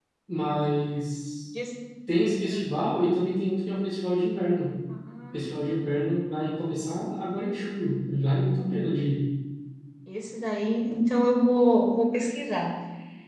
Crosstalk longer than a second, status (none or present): none